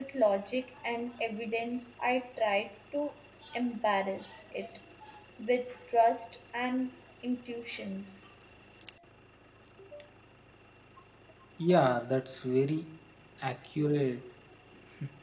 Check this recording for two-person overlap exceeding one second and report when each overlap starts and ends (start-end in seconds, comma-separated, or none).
none